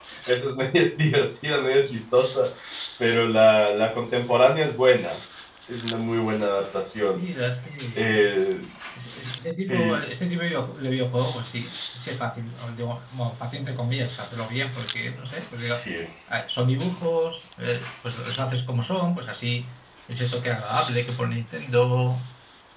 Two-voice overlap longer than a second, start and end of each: none

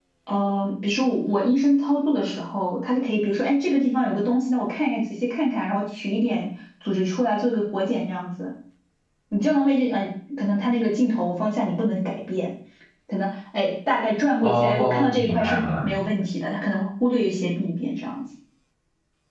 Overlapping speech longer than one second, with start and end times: 14.4-15.9

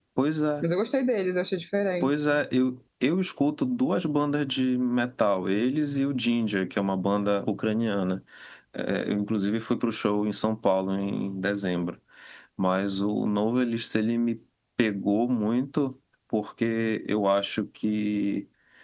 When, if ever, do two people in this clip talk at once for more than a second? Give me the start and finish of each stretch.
none

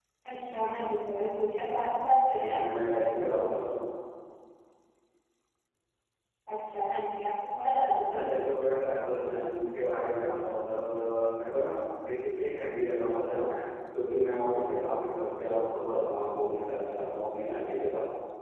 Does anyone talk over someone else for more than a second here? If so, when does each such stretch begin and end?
none

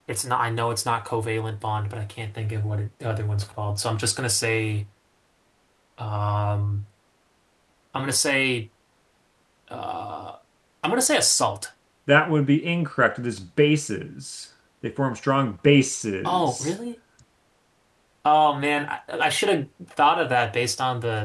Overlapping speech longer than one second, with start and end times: none

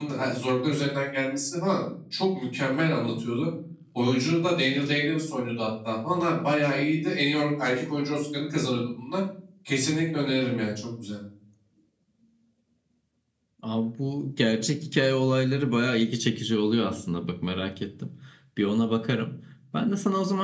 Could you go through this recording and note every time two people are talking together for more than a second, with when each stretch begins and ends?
none

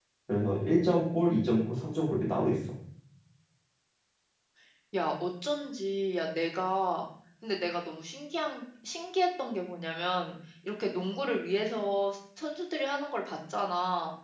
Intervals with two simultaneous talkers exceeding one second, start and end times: none

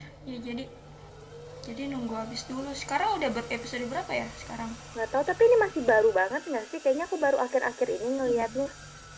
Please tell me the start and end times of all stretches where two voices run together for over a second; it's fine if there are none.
none

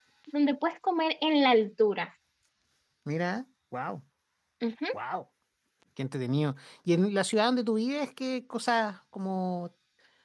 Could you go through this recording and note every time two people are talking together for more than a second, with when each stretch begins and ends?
none

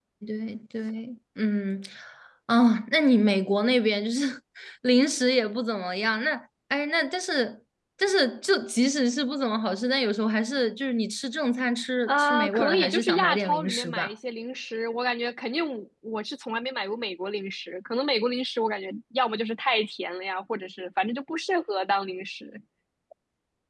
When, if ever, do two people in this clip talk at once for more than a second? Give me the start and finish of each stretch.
12.1-14.1

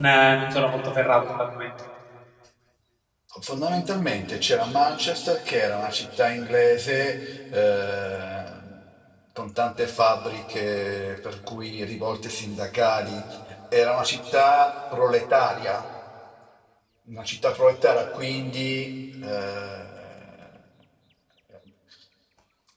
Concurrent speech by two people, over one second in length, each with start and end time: none

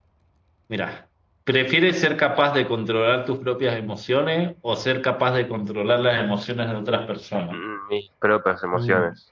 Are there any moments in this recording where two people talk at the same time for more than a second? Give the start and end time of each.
none

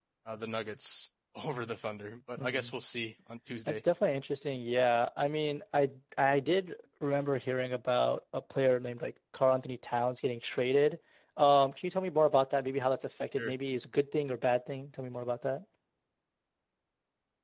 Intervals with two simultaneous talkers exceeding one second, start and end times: none

